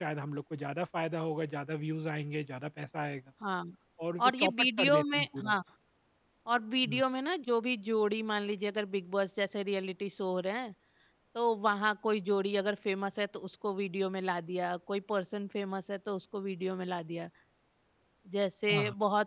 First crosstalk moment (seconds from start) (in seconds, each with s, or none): 4.2 s